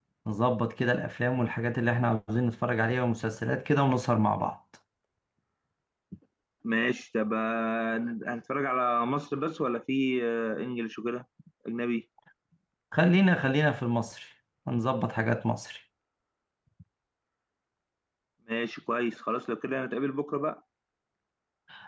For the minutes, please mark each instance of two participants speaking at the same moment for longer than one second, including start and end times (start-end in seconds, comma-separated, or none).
none